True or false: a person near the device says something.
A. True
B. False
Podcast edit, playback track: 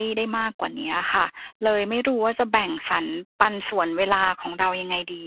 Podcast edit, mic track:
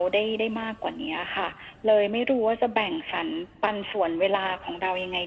B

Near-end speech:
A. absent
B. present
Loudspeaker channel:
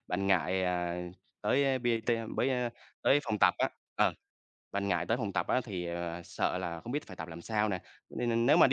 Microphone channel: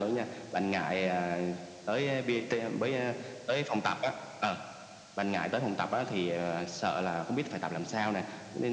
A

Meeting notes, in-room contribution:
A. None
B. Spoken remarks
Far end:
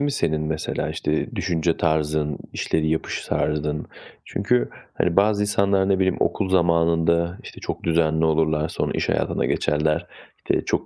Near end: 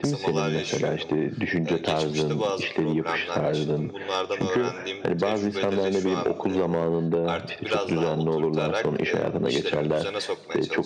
B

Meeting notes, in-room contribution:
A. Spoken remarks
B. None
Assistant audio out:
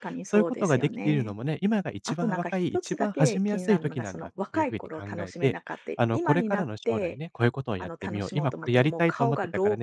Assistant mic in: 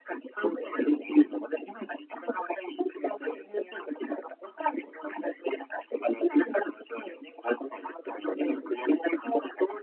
B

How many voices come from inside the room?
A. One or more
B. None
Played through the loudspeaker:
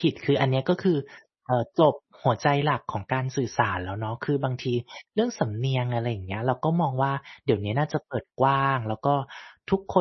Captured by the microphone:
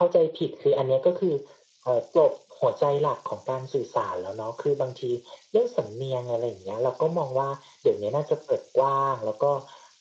B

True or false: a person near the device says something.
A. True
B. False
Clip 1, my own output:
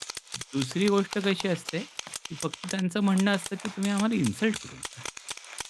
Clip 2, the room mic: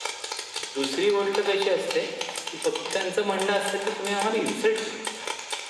B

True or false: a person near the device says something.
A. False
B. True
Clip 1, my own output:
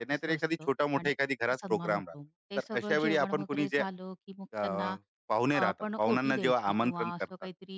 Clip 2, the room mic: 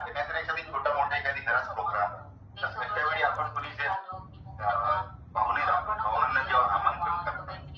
A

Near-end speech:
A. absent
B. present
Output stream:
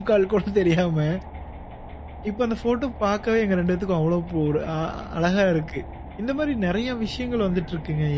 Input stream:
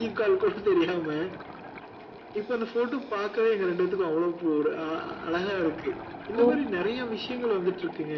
B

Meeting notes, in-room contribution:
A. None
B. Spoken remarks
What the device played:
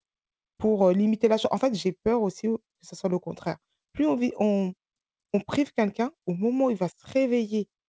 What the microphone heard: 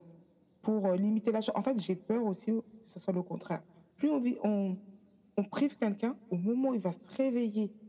A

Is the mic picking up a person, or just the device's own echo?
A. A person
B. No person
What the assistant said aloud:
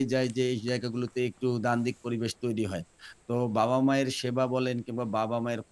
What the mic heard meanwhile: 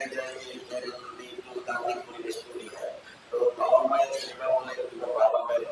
B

